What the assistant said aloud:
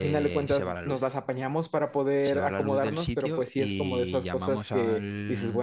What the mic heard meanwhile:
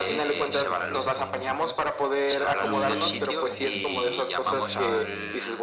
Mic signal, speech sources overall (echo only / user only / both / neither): both